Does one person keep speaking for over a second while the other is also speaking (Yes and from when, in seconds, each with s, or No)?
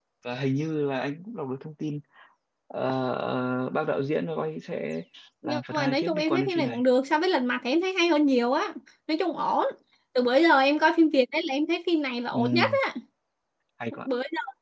Yes, from 5.4 s